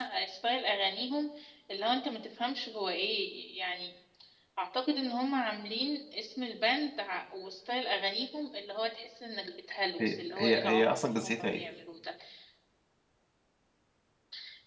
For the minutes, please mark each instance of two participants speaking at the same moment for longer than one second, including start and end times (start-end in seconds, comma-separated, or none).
10.0-11.6